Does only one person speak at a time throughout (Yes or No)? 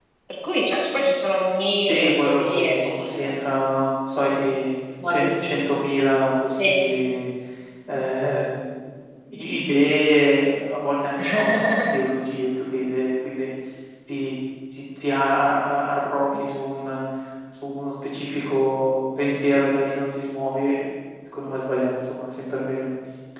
No